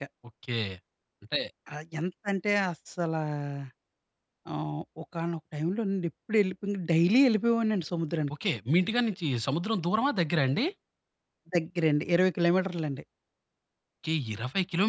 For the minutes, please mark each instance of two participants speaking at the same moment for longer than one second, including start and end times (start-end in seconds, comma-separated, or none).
none